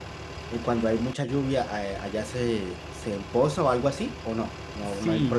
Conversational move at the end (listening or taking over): taking over